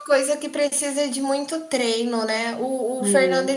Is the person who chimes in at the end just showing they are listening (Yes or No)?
Yes